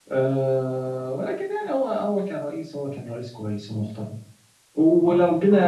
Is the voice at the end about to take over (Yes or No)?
No